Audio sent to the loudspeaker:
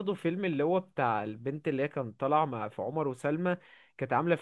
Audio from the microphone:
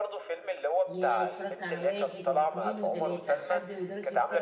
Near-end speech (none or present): present